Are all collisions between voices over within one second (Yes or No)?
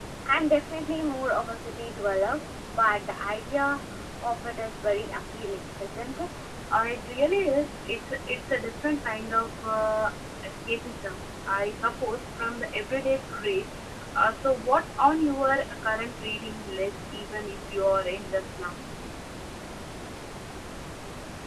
Yes